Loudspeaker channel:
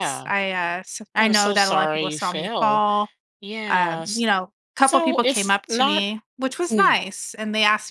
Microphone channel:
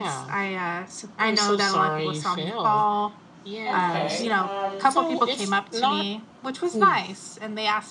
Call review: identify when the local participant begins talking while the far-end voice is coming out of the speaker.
3.7 s

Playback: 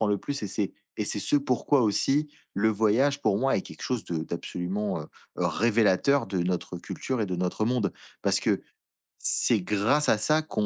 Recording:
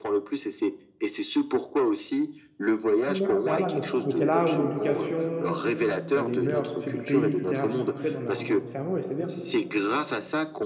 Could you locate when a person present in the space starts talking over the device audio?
3.1 s

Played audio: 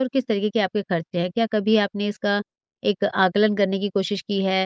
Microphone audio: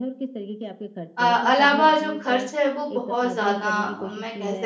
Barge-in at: 1.2 s

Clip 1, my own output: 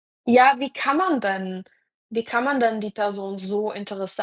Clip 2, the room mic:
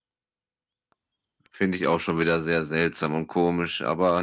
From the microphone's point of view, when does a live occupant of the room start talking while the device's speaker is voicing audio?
1.5 s

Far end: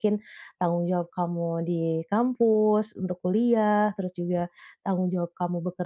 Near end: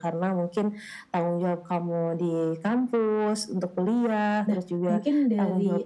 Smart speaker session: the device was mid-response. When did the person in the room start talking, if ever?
4.5 s

